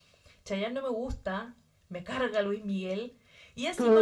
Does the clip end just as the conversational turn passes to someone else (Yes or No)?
Yes